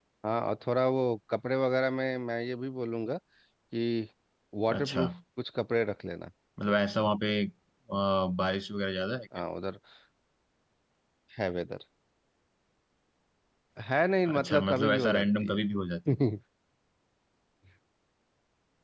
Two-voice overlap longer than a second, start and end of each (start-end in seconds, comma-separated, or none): 14.3-15.6